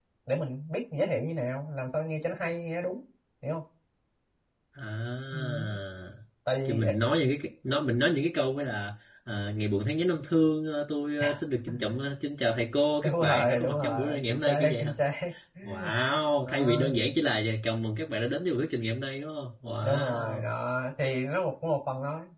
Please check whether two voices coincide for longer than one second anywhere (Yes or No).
Yes